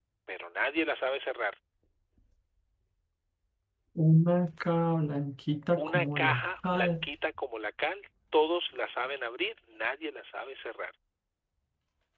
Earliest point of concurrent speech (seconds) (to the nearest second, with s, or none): 6 s